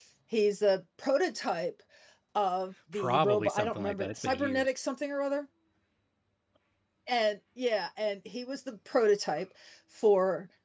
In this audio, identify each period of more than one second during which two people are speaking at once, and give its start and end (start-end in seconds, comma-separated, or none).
2.9-4.7